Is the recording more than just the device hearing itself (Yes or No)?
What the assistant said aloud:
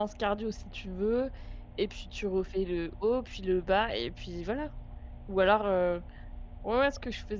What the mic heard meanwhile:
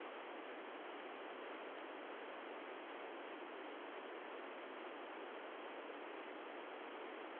No